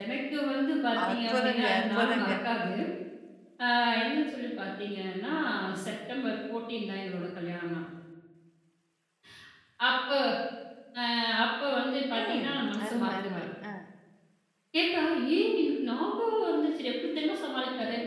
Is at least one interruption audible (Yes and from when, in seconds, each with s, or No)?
Yes, from 1.1 s